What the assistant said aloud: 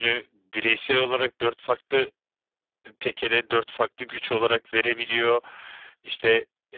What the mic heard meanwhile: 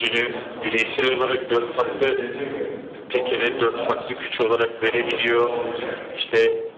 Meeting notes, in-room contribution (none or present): present